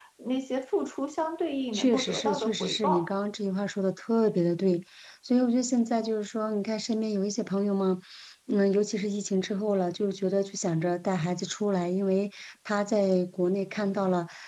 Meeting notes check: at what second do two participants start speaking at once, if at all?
1.7 s

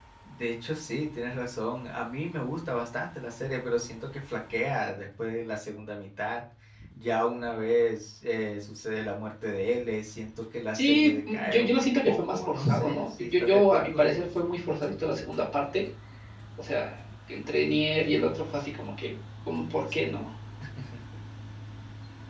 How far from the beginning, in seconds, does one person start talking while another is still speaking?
10.7 s

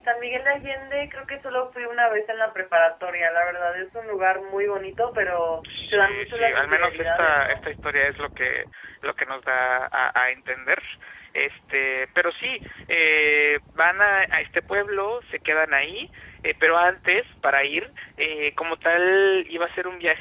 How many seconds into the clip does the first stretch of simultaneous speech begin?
5.6 s

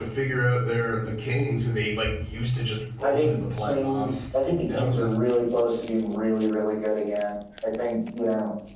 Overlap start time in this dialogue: 3.0 s

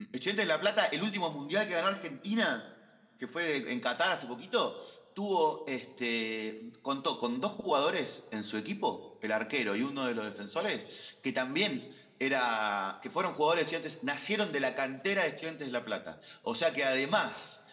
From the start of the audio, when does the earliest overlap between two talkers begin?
none

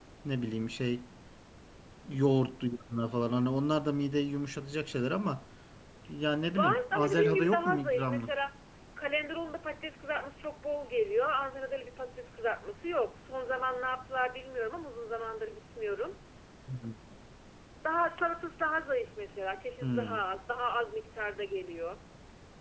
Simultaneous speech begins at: 6.5 s

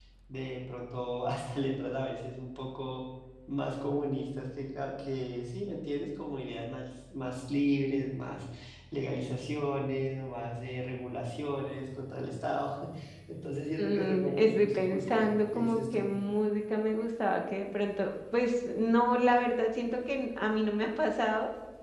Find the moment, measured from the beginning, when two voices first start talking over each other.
13.8 s

